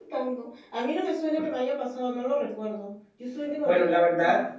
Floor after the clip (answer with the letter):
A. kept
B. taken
B